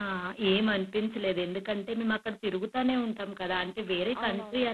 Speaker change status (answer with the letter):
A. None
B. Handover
A